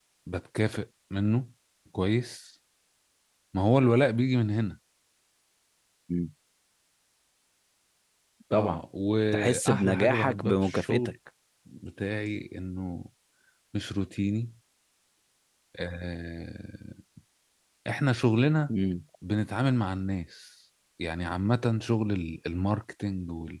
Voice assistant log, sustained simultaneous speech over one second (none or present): present